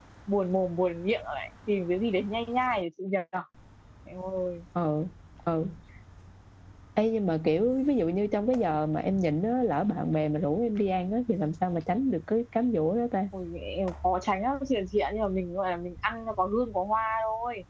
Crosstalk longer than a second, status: none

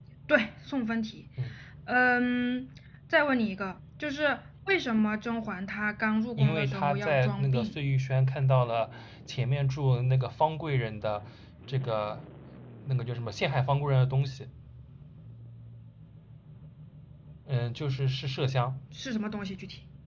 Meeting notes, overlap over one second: present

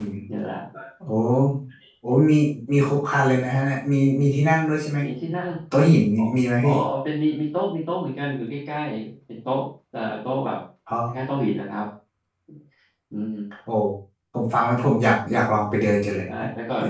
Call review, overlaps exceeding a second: none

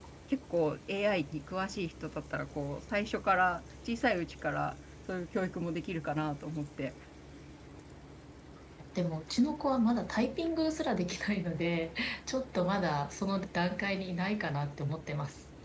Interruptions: none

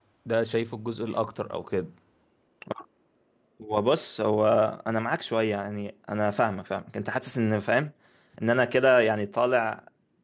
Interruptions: none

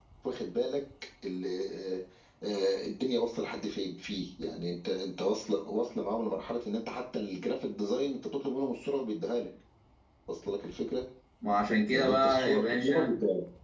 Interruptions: present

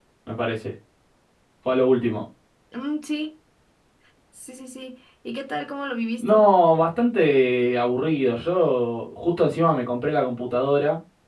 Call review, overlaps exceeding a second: none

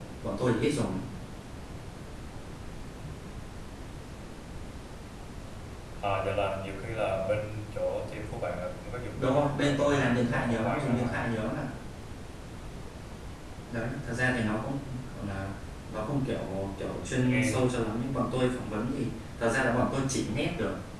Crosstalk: present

